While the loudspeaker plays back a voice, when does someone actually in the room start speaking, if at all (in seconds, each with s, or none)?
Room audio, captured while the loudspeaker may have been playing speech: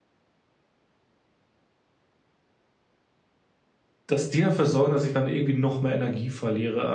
4.1 s